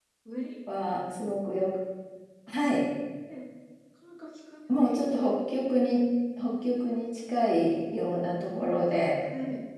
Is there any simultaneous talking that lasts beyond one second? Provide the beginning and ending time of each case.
none

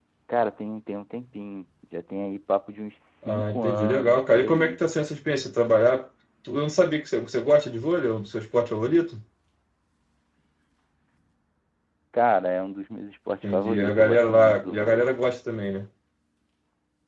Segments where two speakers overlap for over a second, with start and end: 3.3-4.7, 13.4-15.1

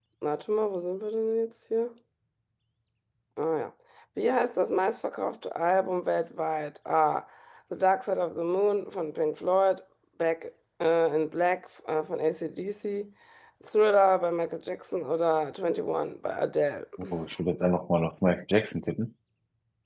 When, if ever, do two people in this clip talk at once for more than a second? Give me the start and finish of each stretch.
none

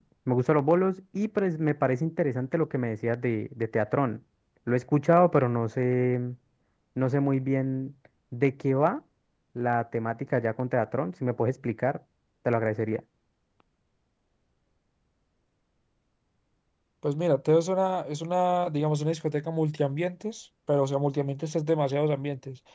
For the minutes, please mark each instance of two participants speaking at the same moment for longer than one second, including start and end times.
none

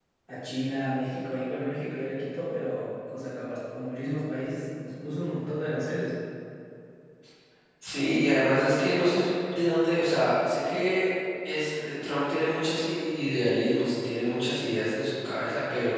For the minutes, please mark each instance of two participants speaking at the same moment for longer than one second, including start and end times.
none

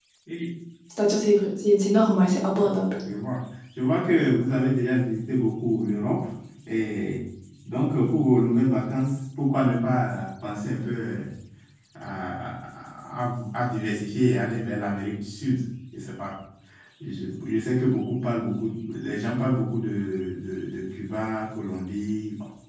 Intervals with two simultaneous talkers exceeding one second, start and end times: none

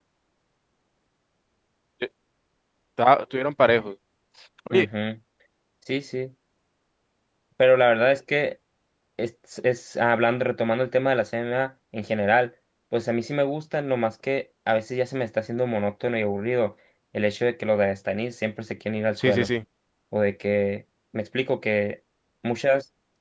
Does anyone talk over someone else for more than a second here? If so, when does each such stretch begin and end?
none

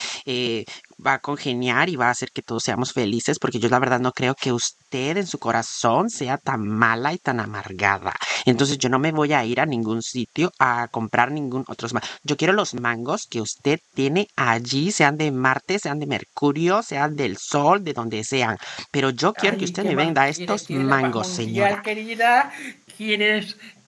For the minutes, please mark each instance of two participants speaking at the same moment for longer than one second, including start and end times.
19.4-21.8

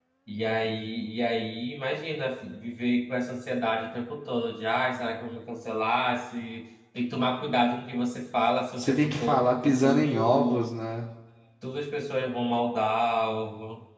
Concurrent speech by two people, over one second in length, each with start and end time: 8.8-10.7

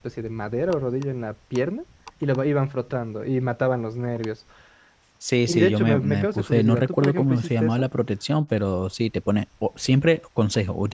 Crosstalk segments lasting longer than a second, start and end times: 5.5-7.8

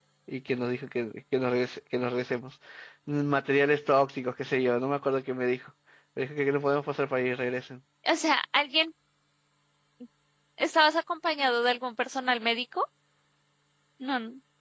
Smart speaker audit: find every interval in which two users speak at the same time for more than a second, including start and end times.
none

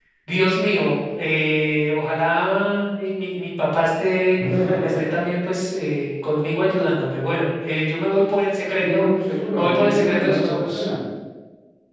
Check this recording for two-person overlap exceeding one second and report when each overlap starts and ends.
9.5-10.8

